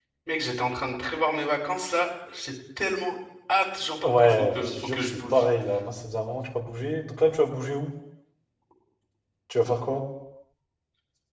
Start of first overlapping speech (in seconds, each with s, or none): 4.0 s